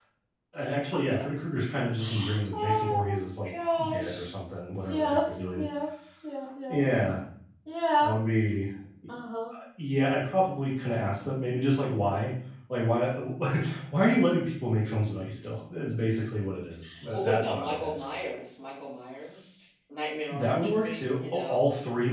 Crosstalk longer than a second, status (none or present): present